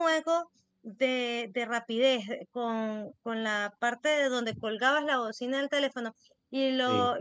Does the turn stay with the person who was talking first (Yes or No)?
Yes